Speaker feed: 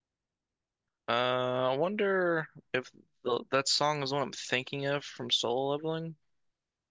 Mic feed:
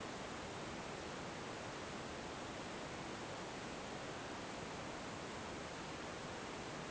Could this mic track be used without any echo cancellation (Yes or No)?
Yes